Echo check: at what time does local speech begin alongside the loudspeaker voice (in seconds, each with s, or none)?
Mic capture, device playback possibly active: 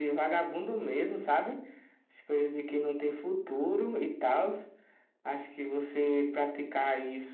none